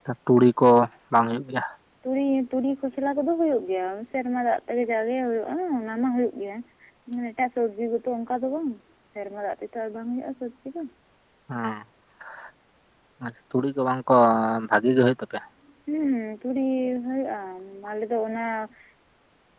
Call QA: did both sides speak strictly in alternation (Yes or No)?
Yes